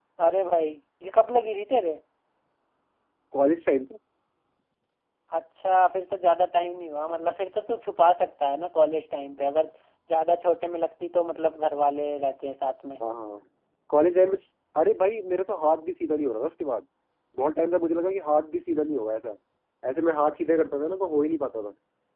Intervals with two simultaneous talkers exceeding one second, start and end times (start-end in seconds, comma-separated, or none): none